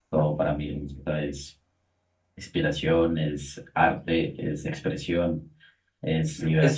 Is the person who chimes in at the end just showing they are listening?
No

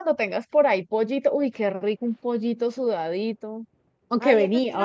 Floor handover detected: Yes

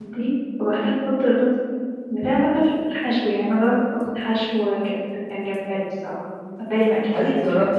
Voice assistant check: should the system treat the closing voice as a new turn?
Yes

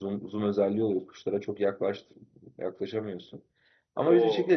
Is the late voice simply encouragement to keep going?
Yes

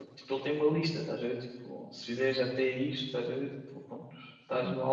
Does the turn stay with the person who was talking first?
Yes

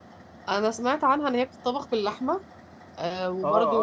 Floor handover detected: Yes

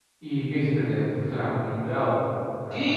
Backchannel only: No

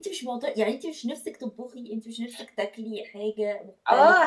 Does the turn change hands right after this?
Yes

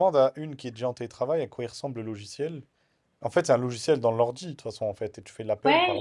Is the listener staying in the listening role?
No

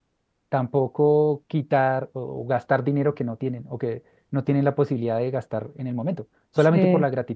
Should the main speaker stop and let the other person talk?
No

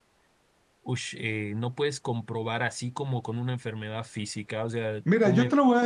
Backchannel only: No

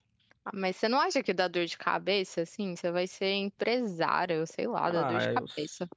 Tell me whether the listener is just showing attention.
No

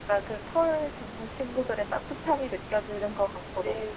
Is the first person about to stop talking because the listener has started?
Yes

